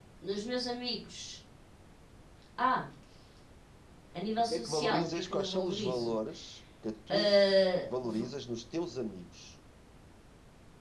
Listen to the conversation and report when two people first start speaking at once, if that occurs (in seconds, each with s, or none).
4.5 s